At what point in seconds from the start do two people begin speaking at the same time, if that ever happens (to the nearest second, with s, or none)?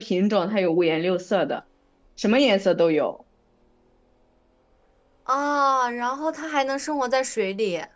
none